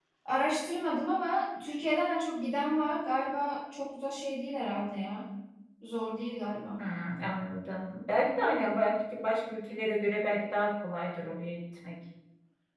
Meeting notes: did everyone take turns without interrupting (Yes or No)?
Yes